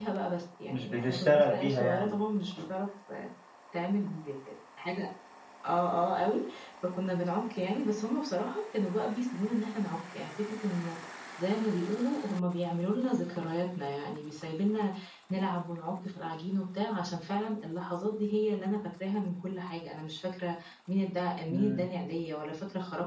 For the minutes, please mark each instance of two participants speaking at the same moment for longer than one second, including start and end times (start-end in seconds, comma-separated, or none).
0.7-2.1